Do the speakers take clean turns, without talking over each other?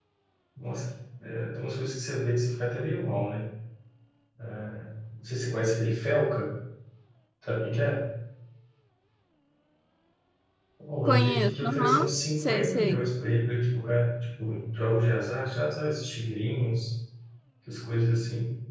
No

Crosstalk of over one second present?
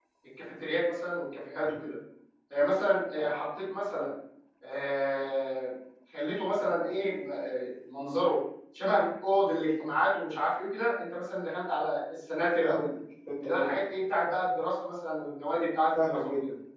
No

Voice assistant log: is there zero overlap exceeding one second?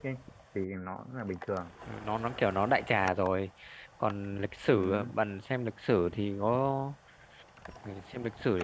Yes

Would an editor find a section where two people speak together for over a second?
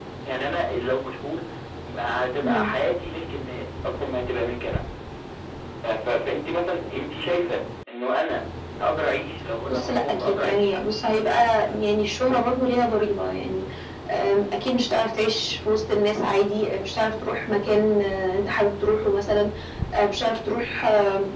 Yes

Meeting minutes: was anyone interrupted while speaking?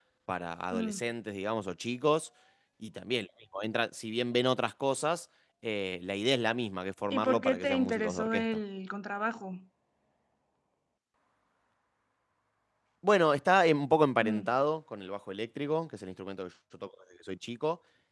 Yes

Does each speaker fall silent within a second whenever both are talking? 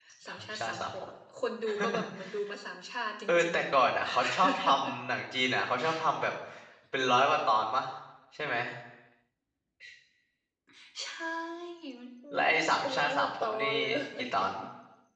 No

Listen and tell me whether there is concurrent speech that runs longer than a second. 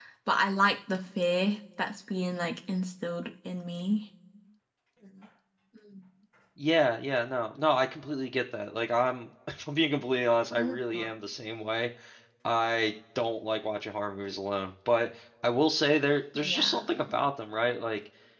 No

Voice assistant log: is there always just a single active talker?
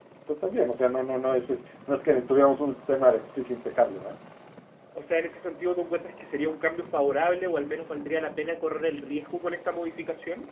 Yes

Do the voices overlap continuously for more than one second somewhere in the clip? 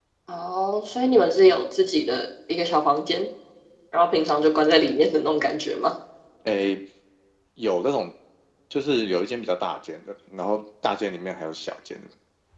No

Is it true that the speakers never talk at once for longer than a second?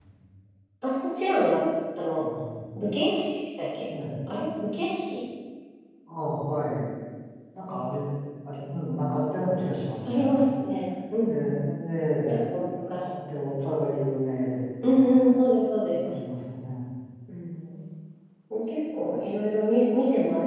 Yes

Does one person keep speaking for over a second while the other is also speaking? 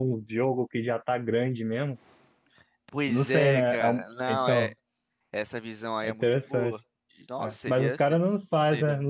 Yes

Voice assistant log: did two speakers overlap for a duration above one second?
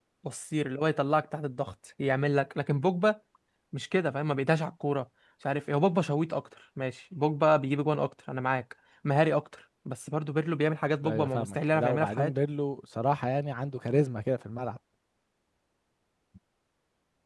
Yes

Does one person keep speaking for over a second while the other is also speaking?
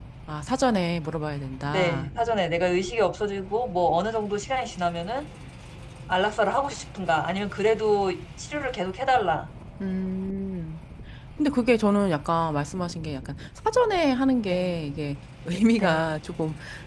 No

